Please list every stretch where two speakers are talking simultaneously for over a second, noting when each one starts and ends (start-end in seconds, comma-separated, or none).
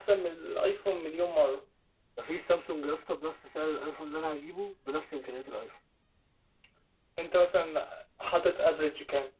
none